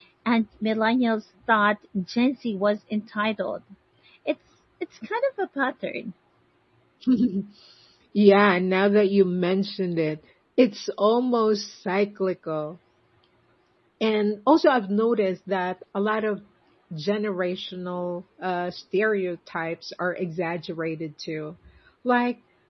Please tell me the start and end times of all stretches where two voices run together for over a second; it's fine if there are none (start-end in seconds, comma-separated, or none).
none